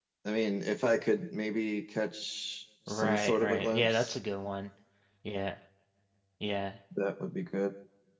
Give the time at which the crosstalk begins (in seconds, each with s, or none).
2.9 s